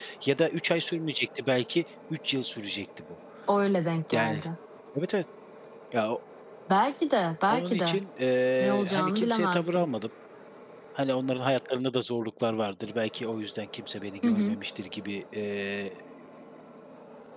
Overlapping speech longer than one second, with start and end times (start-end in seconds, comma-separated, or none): 8.6-9.9